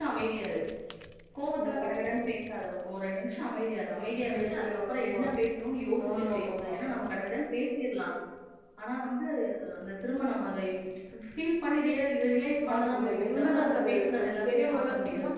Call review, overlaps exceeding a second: present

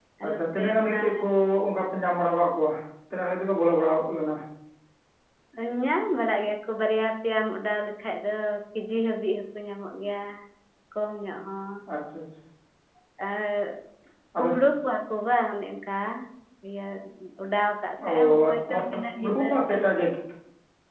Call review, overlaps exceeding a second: present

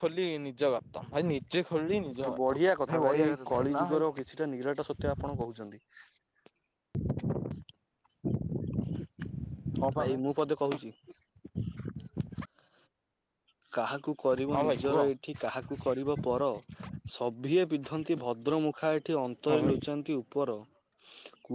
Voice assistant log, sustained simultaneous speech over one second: present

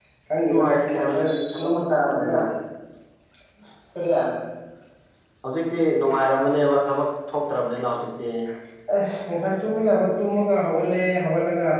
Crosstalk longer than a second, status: present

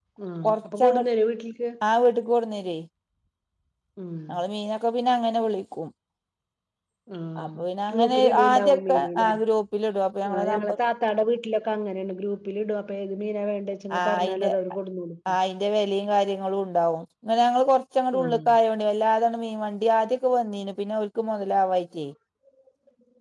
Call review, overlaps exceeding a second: present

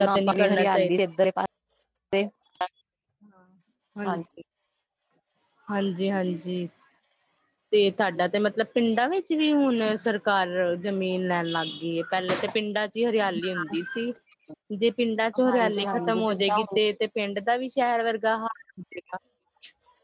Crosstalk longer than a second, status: present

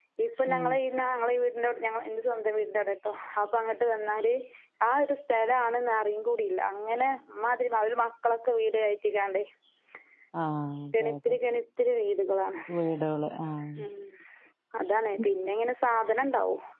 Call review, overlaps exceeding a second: none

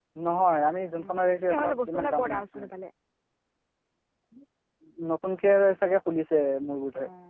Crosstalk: present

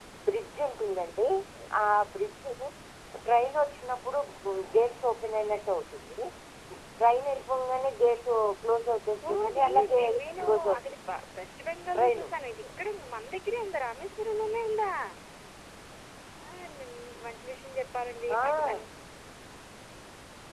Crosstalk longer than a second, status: present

